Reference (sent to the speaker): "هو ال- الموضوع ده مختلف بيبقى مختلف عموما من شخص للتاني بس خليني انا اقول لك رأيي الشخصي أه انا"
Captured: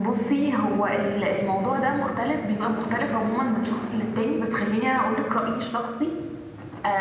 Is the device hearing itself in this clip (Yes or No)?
Yes